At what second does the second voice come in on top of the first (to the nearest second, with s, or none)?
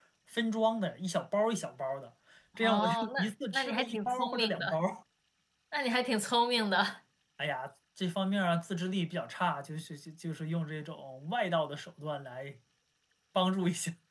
3 s